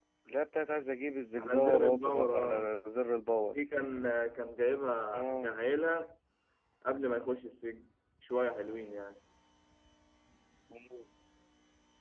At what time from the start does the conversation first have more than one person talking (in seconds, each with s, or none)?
1.4 s